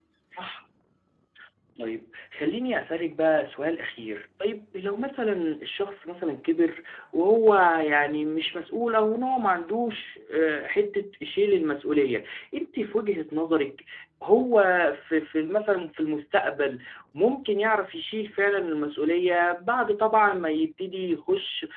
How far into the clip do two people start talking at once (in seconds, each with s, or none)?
none